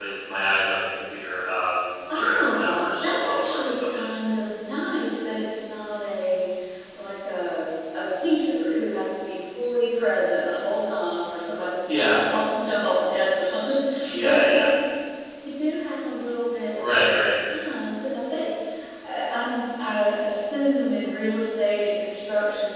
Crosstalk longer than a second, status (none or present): present